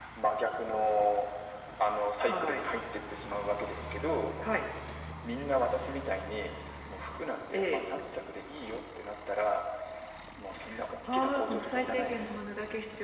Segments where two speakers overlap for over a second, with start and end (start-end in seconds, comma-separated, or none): 11.1-12.4